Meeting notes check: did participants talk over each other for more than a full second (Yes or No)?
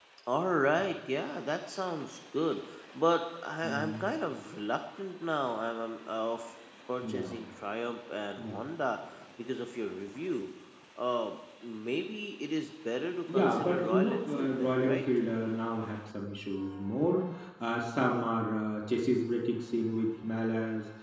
Yes